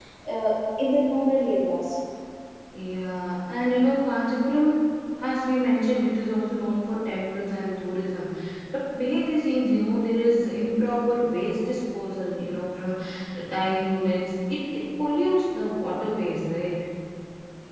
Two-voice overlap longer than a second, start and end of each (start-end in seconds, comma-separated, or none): none